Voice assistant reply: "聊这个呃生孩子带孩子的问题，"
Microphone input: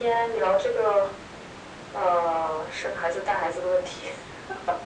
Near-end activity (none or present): none